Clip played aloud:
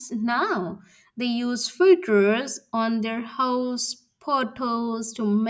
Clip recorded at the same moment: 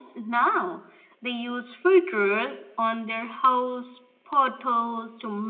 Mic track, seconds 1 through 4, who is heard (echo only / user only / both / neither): echo only